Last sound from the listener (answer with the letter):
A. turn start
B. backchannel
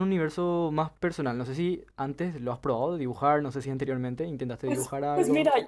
A